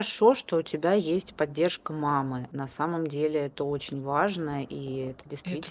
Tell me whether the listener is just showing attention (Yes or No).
Yes